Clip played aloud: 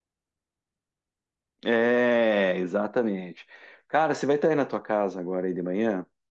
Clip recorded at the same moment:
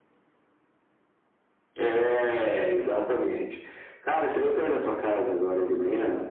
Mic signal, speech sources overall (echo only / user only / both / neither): echo only